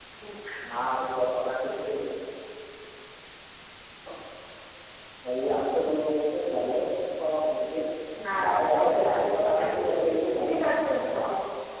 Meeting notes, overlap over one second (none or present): present